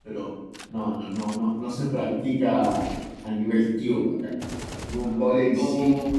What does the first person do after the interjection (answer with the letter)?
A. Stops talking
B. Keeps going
B